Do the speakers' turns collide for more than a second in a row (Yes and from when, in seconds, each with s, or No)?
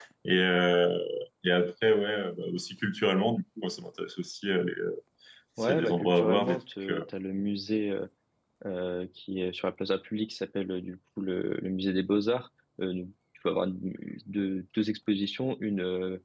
Yes, from 5.6 s